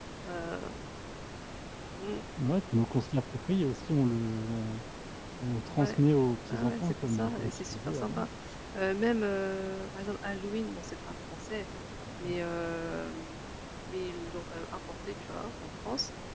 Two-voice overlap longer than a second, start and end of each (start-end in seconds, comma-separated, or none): 6.5-8.3